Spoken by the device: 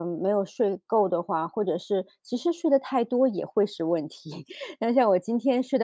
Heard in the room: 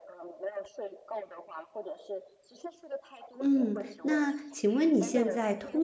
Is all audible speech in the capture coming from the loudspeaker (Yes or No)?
No